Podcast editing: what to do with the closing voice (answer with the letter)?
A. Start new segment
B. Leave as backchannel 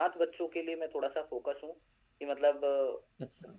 B